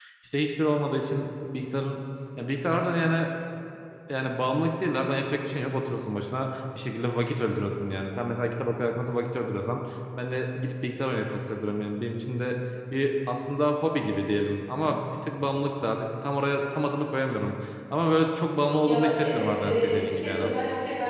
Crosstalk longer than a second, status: present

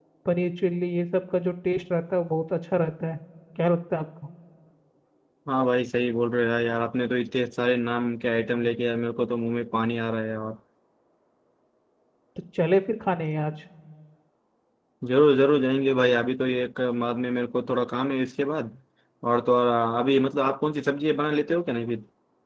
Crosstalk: none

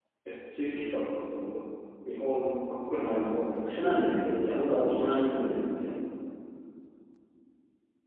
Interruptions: present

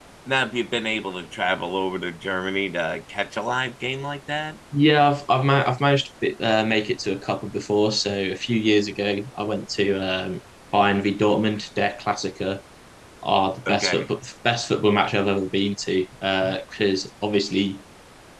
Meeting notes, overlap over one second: none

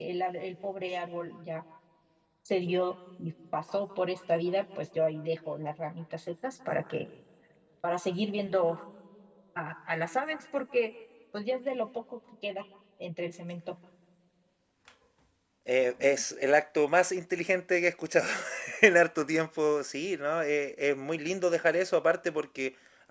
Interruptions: none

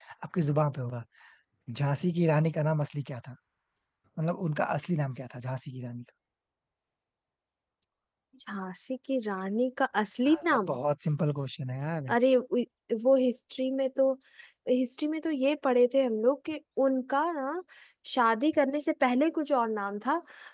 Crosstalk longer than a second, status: none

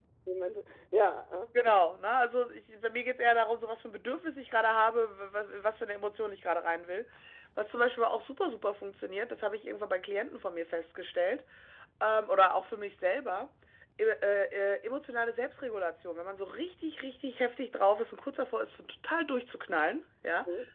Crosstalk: none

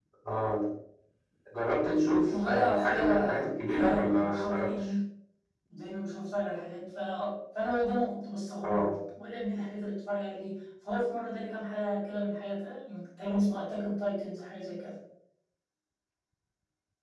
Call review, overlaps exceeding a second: present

